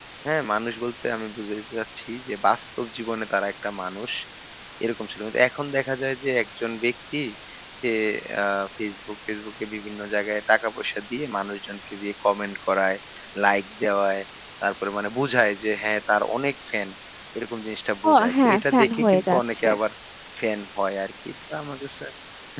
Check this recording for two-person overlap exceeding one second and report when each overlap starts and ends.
18.1-19.7

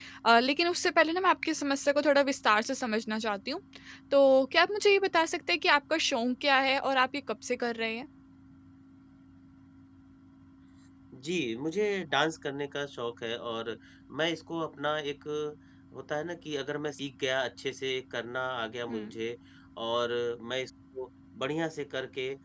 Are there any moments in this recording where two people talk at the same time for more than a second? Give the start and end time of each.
none

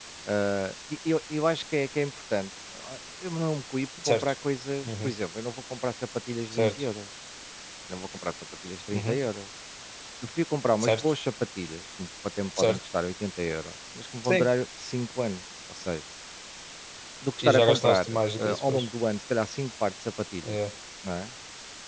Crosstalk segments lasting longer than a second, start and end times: 17.4-18.8

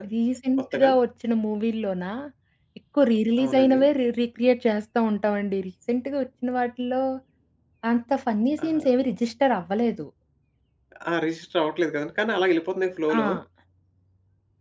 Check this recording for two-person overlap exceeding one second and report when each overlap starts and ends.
none

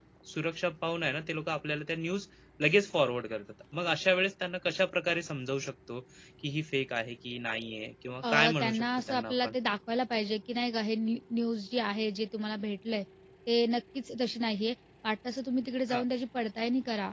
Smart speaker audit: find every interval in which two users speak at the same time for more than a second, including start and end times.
8.3-9.5

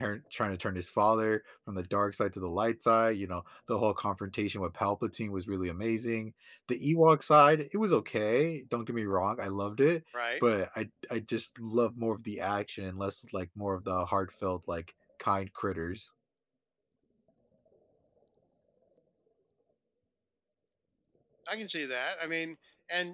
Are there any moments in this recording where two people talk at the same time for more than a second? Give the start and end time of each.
none

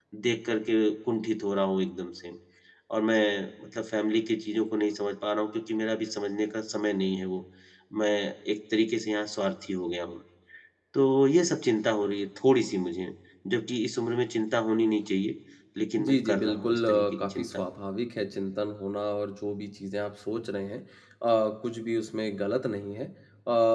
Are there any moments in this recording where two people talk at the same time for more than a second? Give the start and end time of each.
16.0-17.7

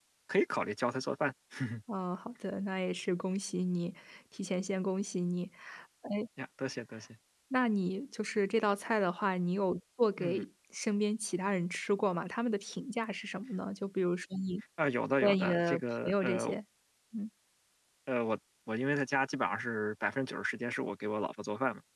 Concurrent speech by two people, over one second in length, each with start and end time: 15.2-16.6

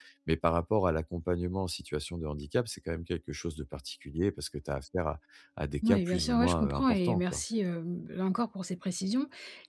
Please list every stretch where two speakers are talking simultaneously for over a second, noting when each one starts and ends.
5.8-7.4

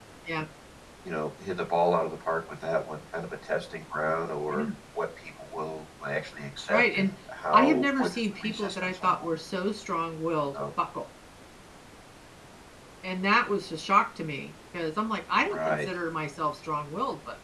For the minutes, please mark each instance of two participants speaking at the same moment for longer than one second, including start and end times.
7.5-9.1

